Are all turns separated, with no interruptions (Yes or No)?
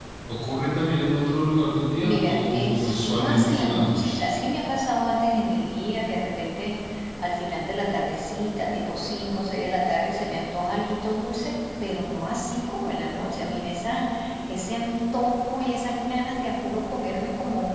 No